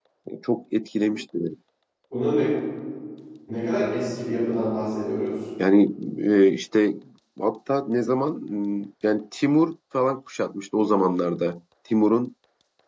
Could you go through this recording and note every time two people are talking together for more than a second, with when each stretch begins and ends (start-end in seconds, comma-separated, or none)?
none